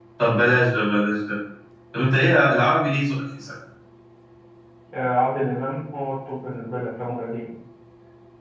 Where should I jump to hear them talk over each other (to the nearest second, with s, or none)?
none